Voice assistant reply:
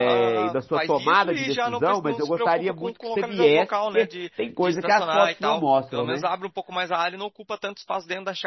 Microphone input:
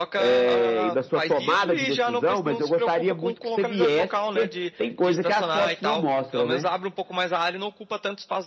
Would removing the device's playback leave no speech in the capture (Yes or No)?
Yes